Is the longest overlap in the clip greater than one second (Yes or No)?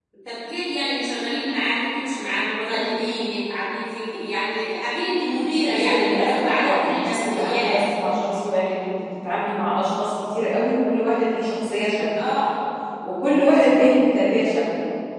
Yes